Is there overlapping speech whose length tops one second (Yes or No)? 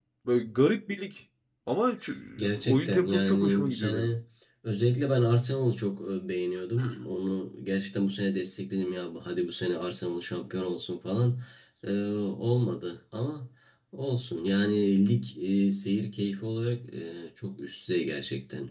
Yes